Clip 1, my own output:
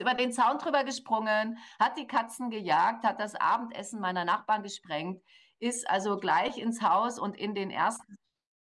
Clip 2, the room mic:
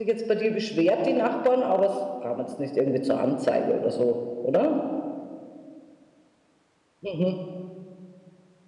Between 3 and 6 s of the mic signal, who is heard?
user only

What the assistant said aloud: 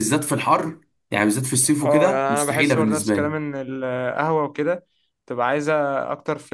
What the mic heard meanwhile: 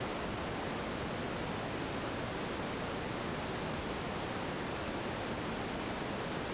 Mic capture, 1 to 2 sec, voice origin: neither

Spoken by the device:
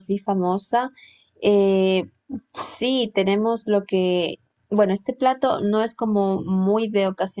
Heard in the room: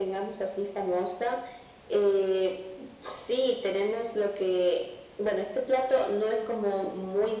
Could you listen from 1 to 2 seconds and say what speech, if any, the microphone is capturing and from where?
echo only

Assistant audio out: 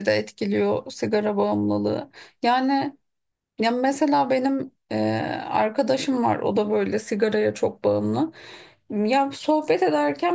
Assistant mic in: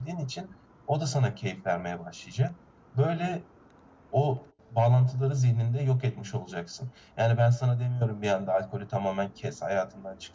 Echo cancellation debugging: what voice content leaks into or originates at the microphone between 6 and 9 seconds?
user only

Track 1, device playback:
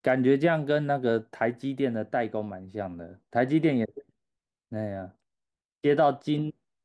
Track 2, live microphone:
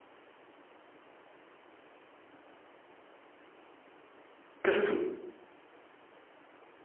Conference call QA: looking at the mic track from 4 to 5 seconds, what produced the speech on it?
user only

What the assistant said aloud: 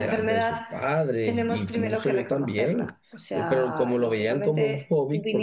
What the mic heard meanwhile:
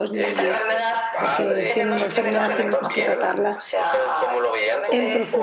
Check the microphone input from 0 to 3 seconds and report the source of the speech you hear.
both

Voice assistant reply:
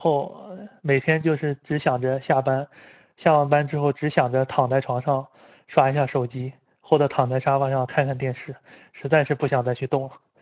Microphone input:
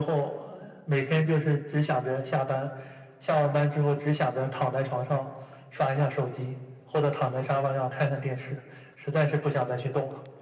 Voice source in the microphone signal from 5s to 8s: echo only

